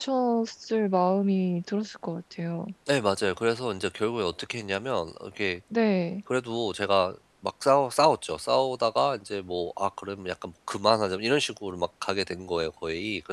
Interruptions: none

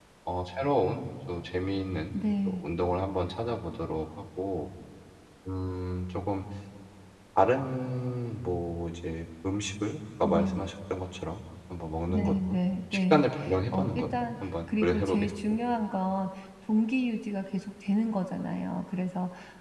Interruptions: present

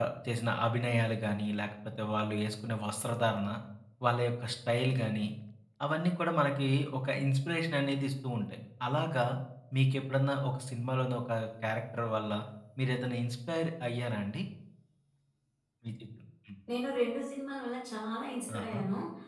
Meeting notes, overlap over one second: none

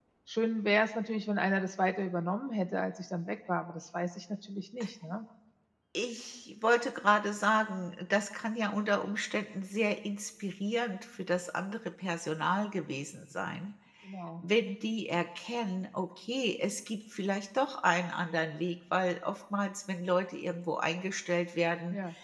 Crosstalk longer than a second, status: none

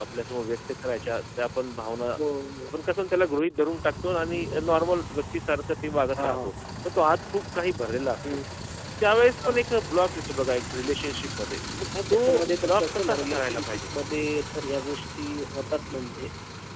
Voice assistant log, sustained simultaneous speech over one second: present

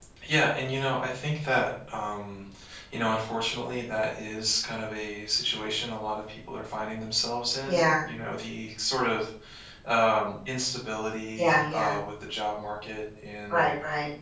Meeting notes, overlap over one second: none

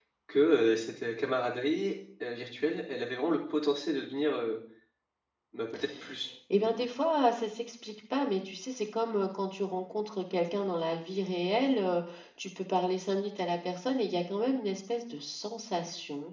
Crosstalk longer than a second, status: none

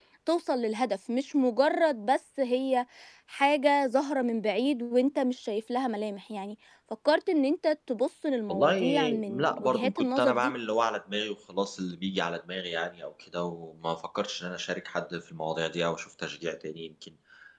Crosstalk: present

